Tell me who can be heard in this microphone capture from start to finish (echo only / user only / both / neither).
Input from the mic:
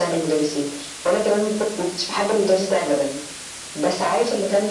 echo only